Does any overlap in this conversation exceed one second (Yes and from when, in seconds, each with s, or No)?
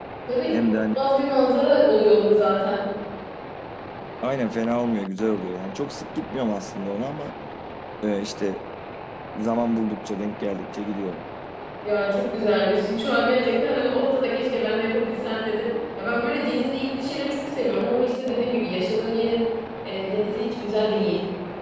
No